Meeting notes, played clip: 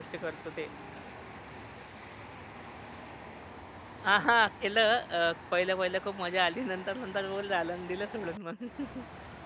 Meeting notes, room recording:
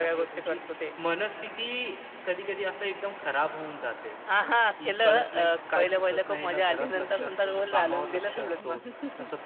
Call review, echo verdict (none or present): present